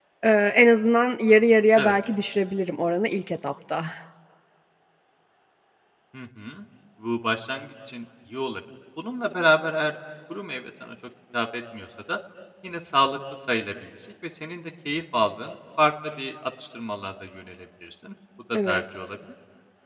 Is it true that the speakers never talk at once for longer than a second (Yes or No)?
Yes